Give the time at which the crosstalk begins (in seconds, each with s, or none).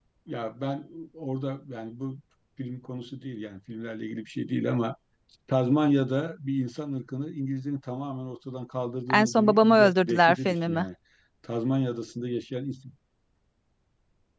9.1 s